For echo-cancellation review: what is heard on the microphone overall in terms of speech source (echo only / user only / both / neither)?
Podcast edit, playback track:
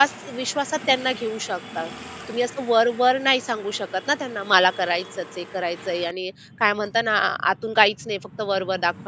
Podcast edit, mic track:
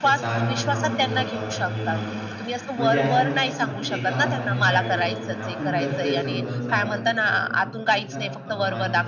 both